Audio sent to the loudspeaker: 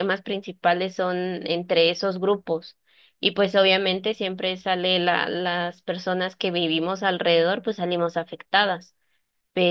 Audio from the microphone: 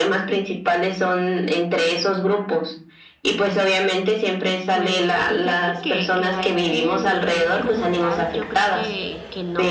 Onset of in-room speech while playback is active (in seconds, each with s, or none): 4.7 s